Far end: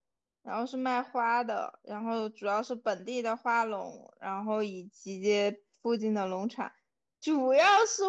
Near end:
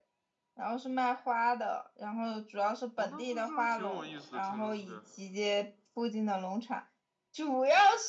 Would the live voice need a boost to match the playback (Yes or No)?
Yes